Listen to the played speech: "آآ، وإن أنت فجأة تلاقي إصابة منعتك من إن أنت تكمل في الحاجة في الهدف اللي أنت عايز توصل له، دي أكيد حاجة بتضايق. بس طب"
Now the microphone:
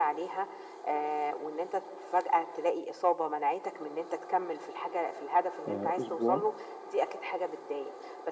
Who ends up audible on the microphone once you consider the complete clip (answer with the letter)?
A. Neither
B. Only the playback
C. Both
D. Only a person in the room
C